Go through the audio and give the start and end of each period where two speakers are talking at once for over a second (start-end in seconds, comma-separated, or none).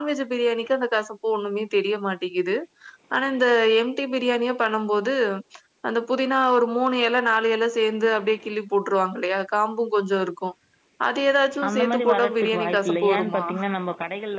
11.7-13.4